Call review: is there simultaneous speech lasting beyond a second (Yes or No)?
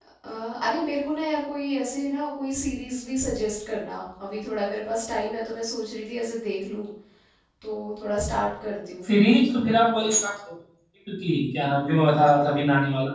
No